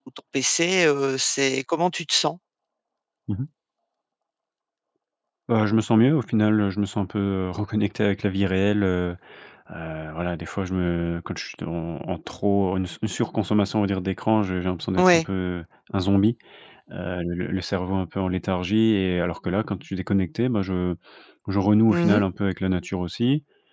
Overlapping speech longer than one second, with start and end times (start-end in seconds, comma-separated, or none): none